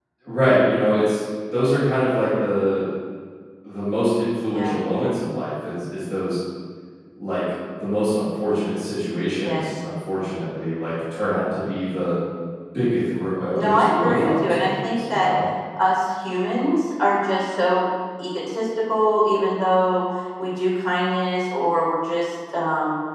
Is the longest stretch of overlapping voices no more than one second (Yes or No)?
No